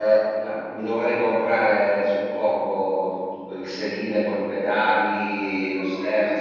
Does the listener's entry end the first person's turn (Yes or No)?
Yes